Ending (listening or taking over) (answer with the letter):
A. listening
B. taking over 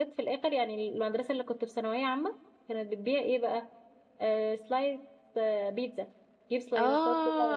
B